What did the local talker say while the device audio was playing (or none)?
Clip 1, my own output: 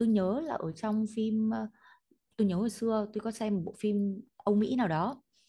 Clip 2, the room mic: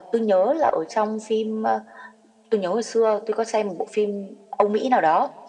none